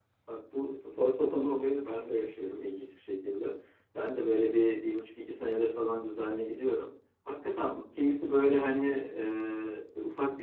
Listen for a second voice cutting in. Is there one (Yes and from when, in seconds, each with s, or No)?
No